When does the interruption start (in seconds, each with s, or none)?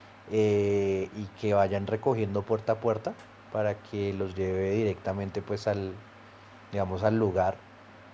none